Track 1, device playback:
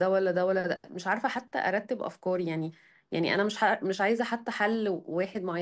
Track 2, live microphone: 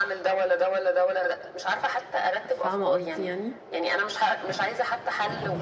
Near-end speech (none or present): present